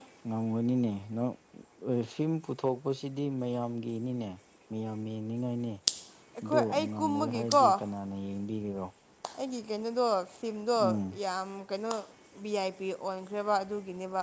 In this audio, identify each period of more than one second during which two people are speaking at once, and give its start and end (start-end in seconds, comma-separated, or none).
6.4-7.6